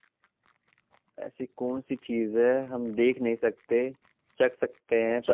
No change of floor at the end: No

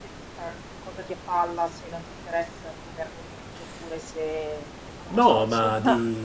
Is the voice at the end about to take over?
Yes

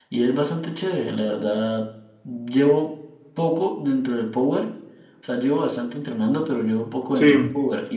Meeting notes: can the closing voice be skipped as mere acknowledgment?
Yes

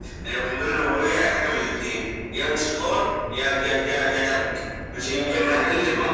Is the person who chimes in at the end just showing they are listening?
No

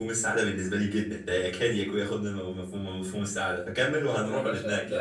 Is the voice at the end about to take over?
Yes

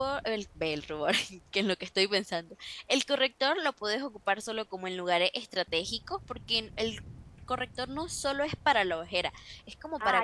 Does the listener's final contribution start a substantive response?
Yes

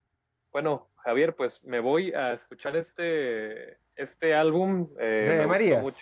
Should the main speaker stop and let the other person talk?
No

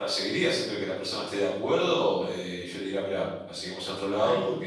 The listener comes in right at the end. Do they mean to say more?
No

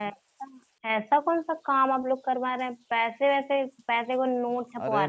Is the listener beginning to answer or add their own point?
Yes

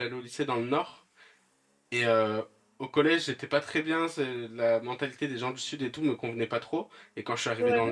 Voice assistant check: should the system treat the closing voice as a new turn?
No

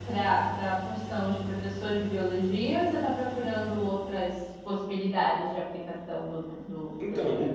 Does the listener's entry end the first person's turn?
Yes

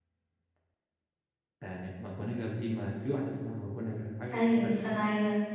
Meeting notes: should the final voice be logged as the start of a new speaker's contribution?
Yes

